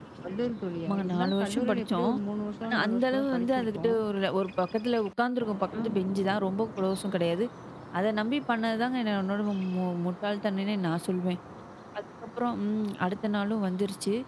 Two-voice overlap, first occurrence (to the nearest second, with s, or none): 1 s